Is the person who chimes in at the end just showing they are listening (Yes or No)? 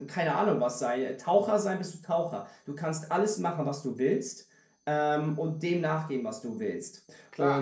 No